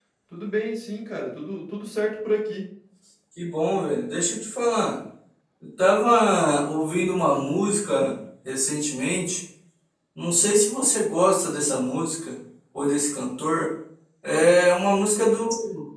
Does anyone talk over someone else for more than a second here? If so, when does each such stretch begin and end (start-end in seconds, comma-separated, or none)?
none